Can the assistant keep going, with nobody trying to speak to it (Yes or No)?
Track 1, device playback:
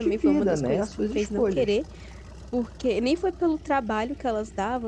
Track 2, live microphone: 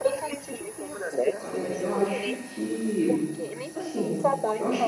No